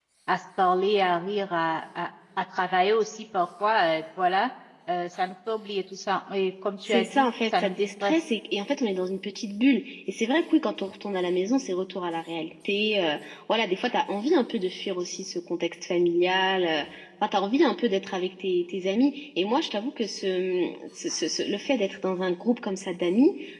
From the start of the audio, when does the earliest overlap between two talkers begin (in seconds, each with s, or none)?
6.8 s